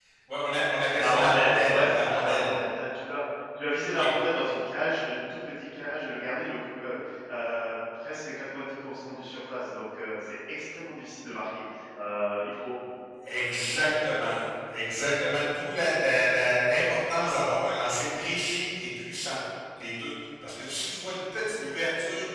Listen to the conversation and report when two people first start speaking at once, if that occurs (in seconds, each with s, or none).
1.0 s